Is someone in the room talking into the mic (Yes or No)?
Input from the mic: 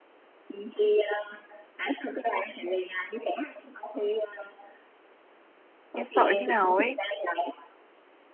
Yes